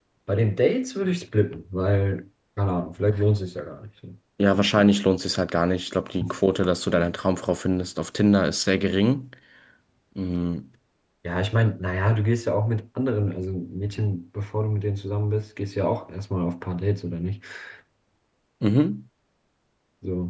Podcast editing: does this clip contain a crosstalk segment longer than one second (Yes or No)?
No